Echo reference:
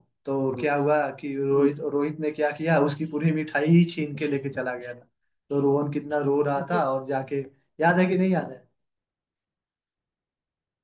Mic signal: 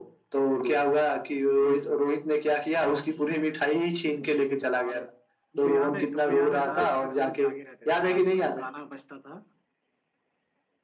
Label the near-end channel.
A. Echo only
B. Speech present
B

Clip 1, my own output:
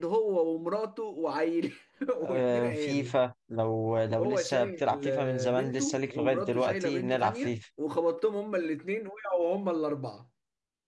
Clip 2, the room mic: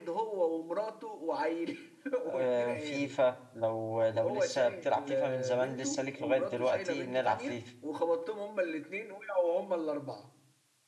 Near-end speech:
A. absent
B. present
A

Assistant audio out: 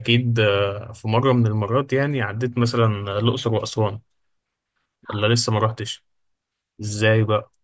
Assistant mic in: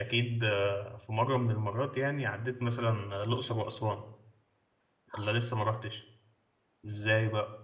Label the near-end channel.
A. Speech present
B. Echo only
B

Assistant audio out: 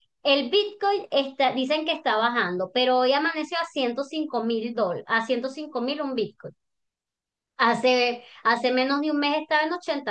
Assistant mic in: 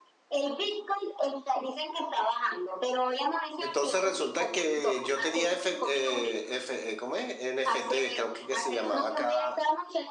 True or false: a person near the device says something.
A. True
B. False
A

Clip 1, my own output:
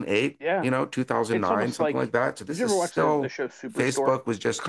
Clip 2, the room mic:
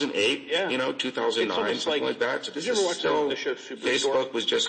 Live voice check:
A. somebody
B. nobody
B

